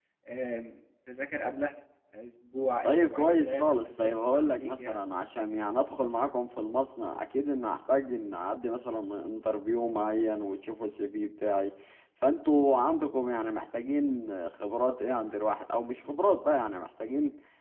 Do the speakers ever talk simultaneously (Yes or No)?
Yes